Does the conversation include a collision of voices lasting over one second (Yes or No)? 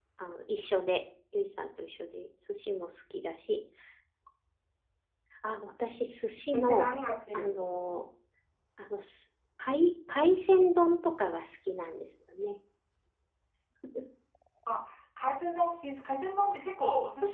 No